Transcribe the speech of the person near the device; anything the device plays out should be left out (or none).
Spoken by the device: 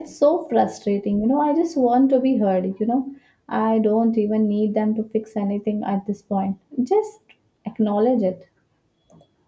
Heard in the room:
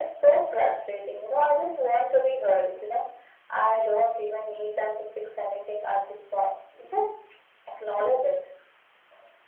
none